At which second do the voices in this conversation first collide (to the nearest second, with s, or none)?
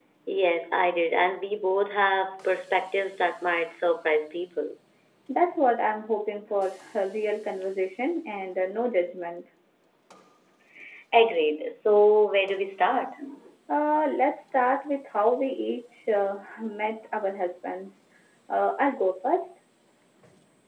none